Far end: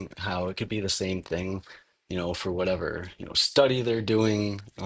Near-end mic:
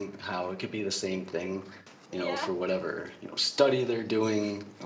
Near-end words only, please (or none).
Yeah.